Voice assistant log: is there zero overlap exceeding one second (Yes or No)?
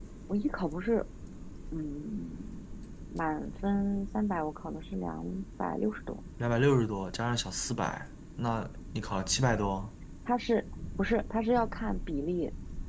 Yes